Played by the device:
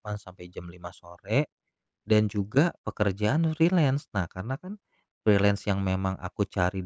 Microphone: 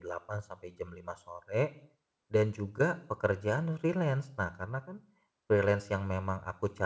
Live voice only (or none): none